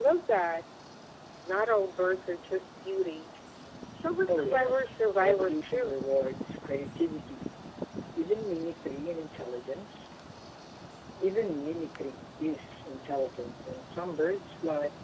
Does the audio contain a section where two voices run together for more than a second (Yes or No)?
Yes